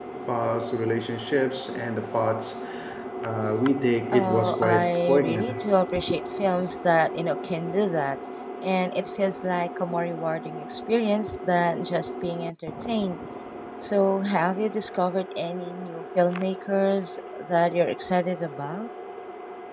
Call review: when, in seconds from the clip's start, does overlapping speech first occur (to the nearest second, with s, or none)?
4 s